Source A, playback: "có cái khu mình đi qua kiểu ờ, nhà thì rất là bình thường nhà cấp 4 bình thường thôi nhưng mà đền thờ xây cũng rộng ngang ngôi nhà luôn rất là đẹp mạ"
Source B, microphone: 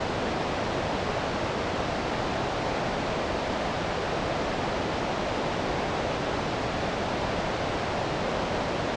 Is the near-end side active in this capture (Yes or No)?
No